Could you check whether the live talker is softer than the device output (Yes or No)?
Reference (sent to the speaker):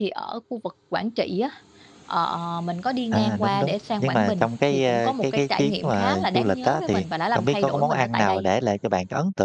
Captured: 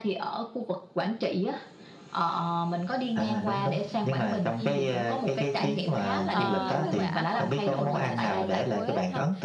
Yes